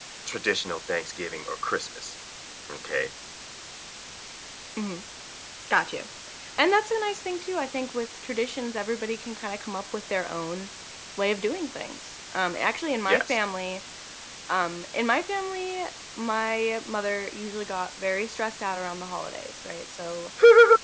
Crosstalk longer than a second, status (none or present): none